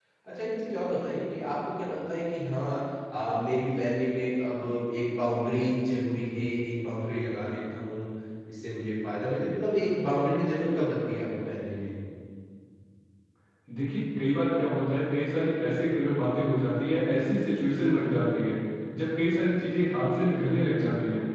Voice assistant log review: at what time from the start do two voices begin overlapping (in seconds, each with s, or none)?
none